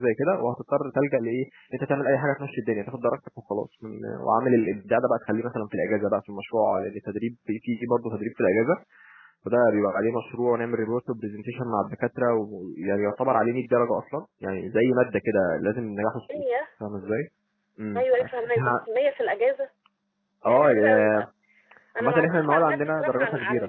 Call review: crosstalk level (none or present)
present